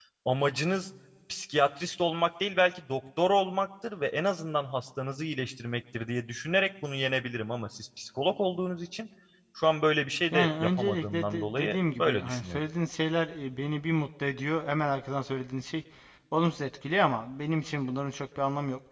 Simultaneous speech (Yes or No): Yes